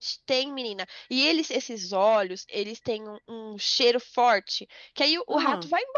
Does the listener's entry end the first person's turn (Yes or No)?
No